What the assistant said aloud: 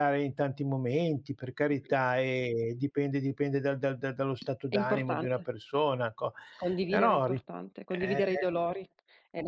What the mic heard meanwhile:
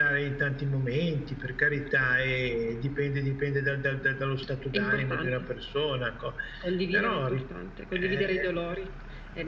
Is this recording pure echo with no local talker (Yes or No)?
Yes